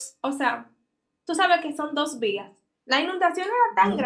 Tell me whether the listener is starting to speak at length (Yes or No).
No